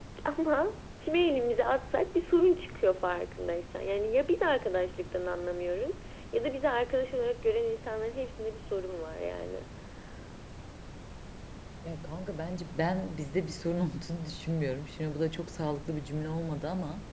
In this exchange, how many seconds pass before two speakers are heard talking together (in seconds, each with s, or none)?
none